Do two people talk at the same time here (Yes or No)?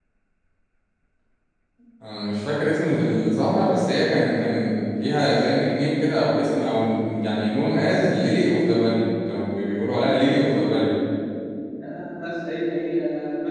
No